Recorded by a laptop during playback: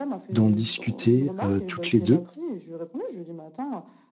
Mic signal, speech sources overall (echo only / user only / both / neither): both